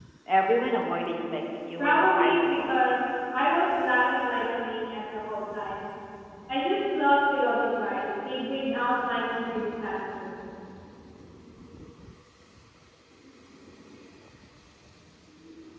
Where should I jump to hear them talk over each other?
1.8 s

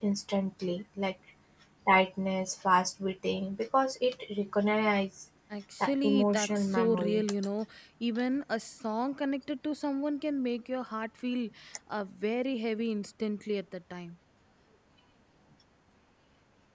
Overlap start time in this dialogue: 5.8 s

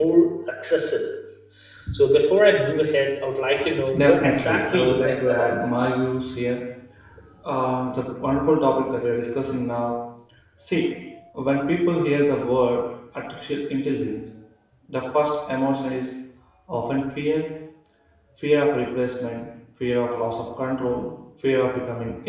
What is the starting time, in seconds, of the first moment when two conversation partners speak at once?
4.0 s

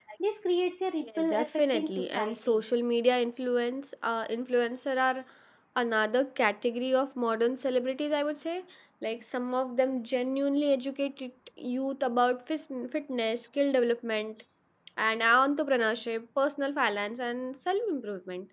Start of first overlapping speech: 1.0 s

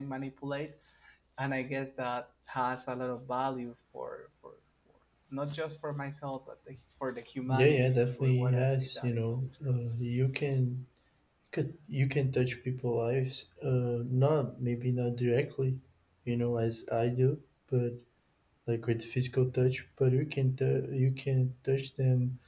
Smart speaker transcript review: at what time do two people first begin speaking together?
7.5 s

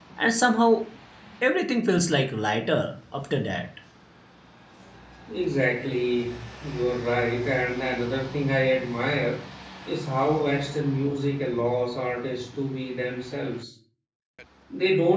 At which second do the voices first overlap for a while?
none

